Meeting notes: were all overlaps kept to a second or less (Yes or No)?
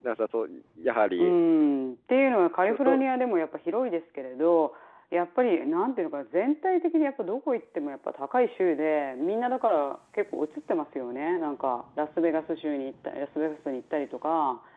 Yes